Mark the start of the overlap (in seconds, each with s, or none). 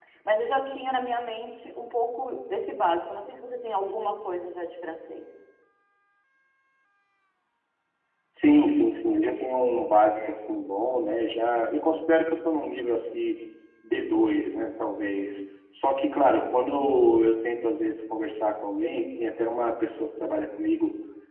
none